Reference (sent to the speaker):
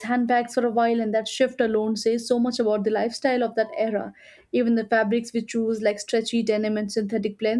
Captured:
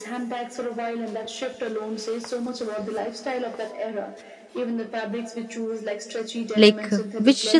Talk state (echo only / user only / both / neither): both